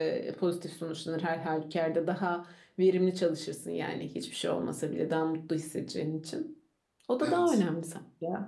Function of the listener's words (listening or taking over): listening